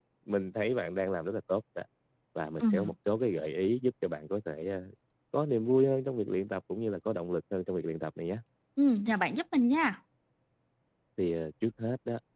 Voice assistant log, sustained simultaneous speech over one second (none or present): none